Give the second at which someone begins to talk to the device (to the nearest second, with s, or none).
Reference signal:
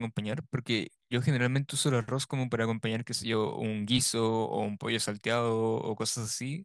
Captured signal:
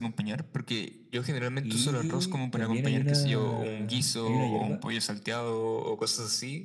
2 s